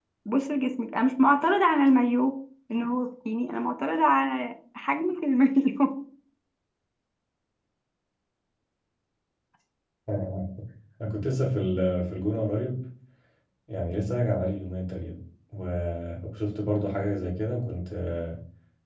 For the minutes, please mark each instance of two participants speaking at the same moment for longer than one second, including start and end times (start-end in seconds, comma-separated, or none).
none